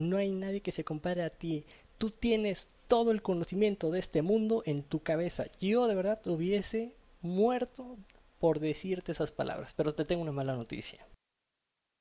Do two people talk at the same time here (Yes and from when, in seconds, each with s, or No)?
No